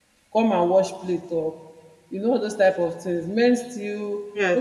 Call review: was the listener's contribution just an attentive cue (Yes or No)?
Yes